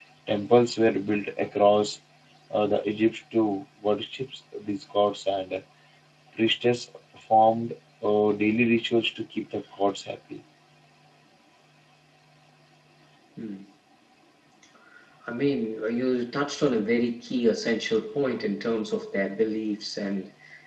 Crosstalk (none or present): none